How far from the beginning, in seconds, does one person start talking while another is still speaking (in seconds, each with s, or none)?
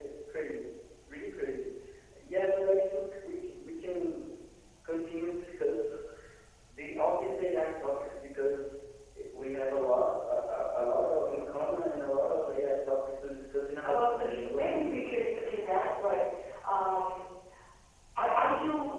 13.8 s